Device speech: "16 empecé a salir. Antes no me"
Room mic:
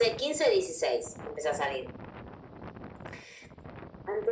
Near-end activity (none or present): none